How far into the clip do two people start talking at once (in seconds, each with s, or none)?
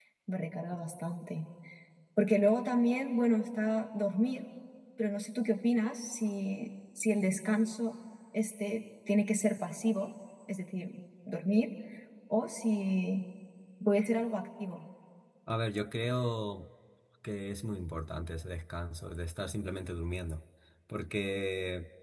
none